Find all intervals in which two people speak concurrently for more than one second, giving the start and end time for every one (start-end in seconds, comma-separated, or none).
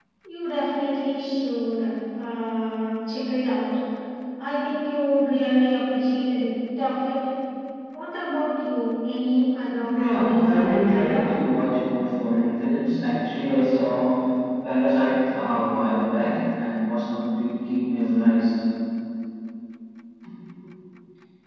9.9-11.3